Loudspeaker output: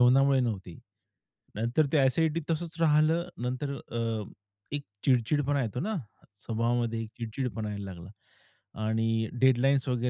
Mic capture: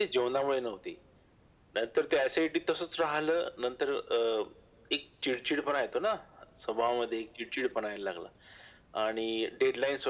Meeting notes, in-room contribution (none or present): none